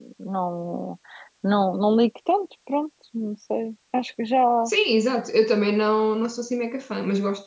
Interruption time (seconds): none

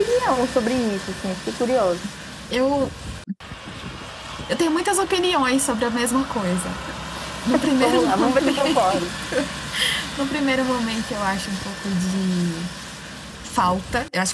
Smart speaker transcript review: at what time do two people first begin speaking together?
7.8 s

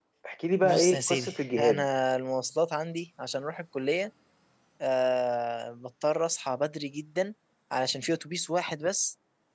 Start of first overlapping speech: 0.6 s

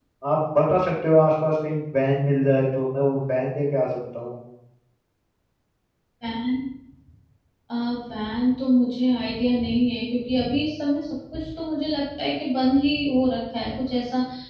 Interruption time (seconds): none

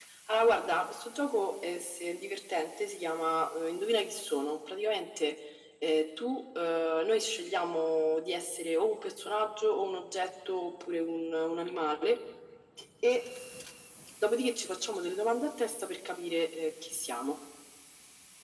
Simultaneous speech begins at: none

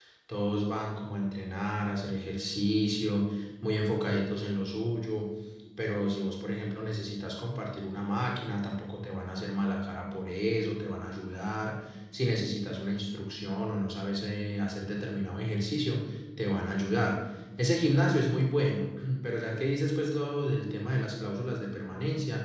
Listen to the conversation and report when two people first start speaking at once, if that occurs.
none

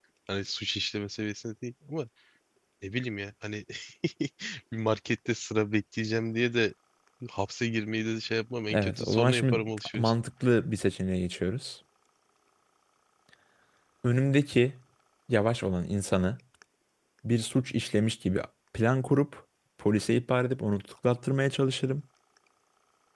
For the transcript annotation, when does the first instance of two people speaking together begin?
8.7 s

